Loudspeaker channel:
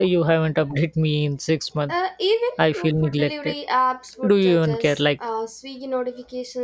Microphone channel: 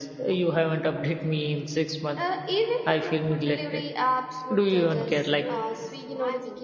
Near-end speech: present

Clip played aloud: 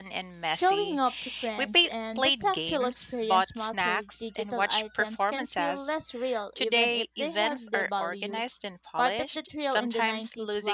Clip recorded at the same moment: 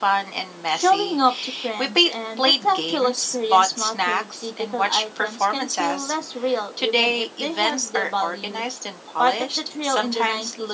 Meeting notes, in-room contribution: none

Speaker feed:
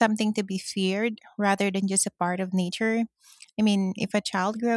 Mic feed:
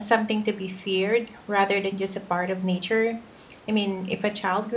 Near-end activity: none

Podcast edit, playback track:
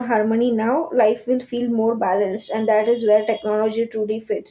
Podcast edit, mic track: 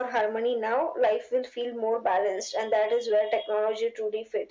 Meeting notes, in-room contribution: none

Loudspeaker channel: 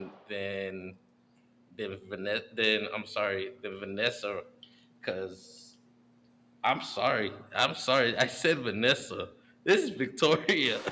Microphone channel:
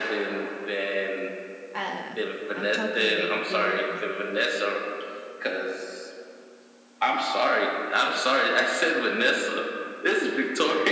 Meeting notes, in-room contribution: present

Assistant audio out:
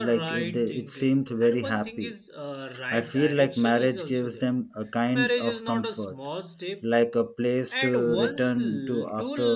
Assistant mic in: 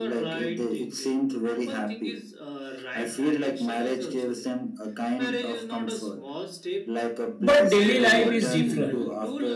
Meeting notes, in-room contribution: present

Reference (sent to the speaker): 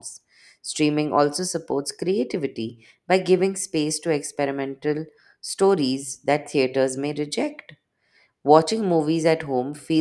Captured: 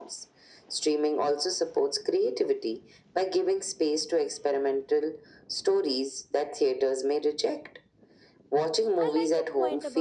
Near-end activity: present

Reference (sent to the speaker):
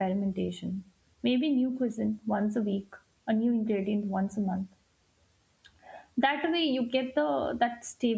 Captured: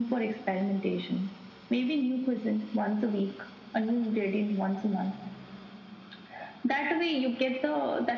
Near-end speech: none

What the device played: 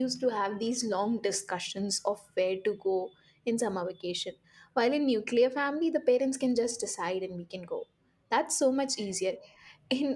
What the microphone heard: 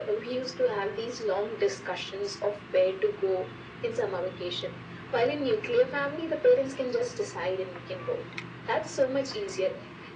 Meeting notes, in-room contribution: none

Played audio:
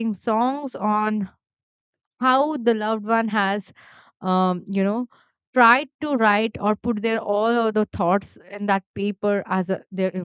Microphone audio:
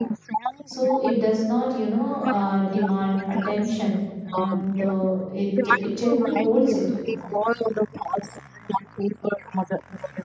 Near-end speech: present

